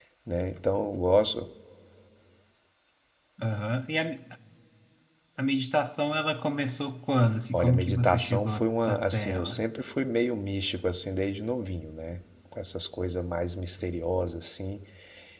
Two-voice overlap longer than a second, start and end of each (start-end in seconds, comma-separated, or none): 7.5-9.6